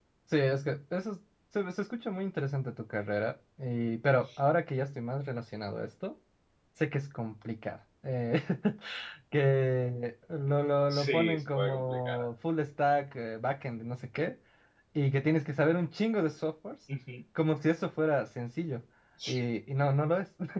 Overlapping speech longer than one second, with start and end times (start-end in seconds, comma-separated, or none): 10.9-12.3